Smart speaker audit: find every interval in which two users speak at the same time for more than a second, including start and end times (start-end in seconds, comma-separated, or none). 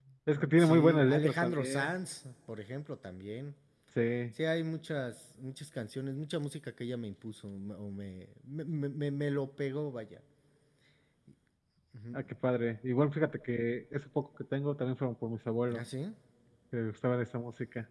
0.6-1.9